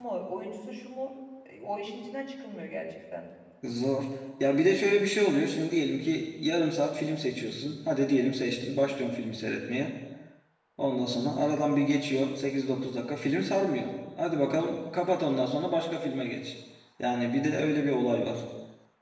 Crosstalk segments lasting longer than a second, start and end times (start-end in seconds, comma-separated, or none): none